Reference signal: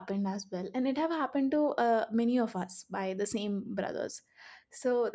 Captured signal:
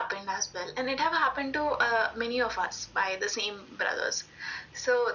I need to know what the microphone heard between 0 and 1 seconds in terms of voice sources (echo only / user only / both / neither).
echo only